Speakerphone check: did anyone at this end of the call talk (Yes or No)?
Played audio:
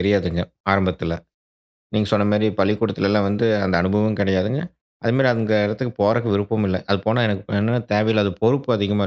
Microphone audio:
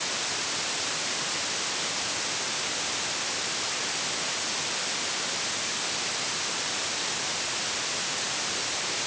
No